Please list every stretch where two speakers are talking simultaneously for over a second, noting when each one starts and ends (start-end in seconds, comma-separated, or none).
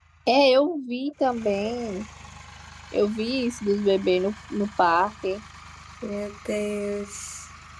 none